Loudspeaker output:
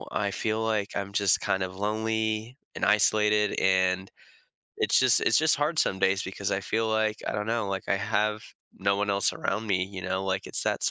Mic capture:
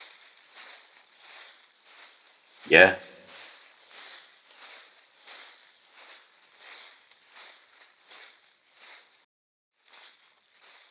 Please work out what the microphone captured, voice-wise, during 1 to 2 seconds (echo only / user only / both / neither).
neither